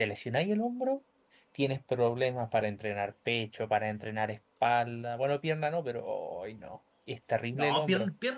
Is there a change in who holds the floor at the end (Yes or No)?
Yes